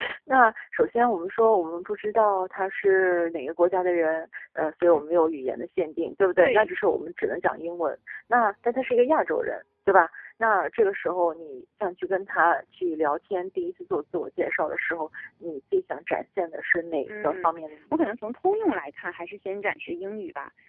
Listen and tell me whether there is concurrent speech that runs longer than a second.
No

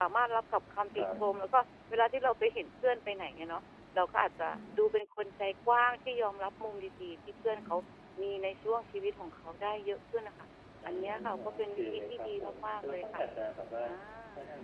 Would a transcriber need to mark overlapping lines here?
Yes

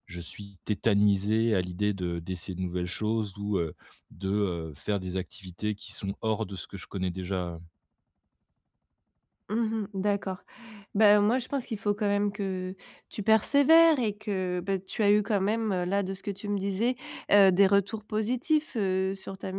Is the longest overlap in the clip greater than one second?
No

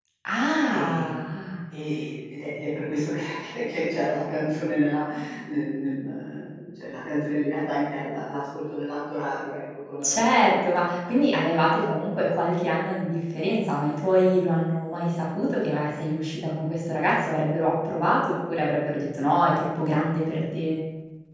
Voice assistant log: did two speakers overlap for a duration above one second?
No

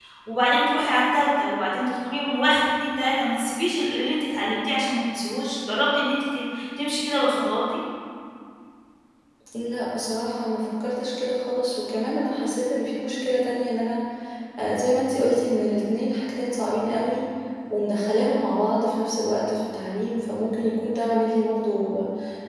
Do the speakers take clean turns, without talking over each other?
Yes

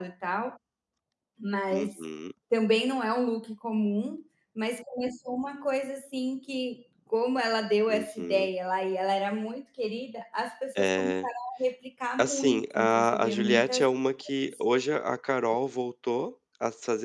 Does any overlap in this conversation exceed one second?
Yes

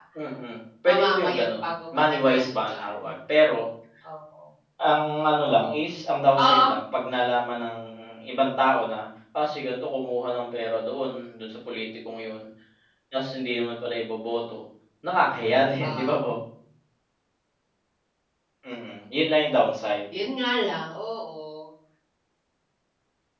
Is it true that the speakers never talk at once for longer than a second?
No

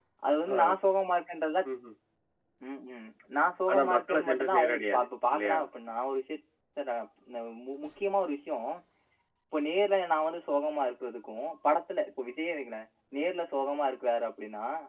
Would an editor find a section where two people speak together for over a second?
Yes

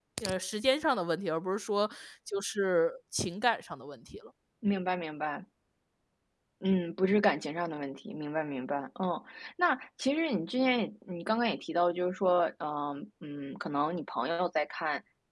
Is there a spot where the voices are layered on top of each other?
No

